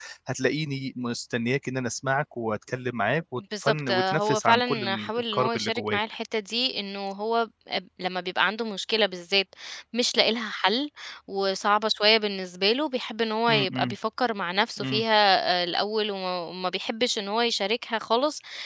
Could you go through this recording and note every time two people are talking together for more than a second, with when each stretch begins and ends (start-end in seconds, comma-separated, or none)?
3.6-6.0